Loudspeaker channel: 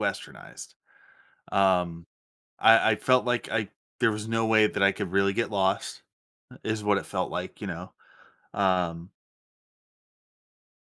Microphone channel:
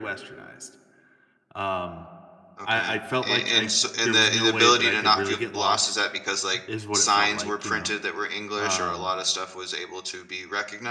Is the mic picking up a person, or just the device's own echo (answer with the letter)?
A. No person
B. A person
B